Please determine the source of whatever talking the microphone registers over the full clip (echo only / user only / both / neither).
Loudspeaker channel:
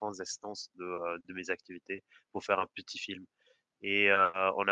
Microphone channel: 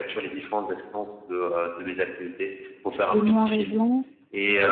both